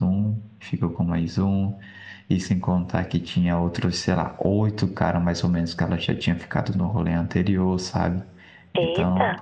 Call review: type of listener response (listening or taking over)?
listening